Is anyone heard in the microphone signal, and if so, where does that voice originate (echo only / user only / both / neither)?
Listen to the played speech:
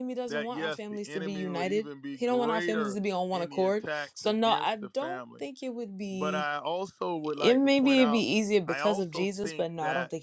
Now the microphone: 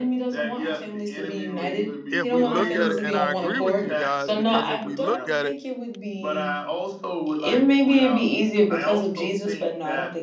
both